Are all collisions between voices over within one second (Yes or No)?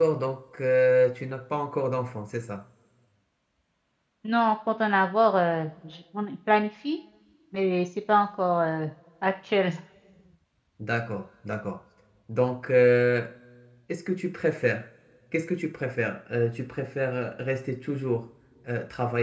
Yes